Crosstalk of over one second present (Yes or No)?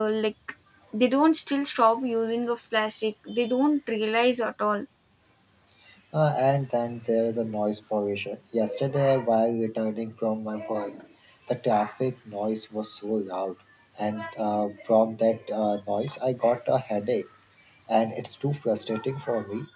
No